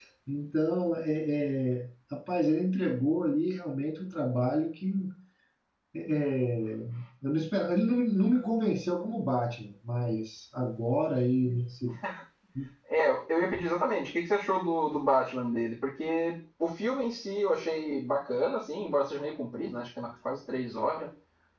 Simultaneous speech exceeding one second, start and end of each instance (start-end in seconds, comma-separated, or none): none